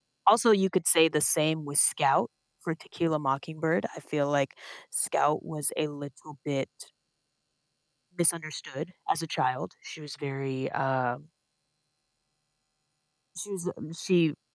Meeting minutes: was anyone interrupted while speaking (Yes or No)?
No